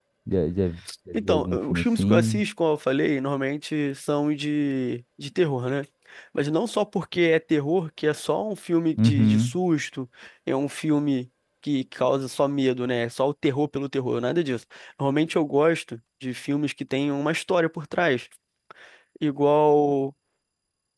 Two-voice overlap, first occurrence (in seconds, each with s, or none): 1.1 s